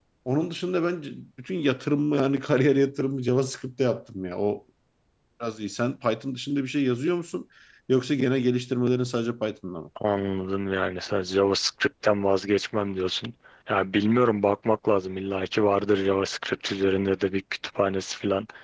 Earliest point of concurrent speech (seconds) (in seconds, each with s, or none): none